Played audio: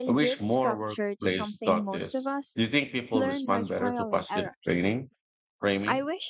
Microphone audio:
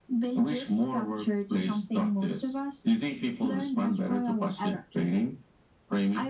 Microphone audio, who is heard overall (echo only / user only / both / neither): echo only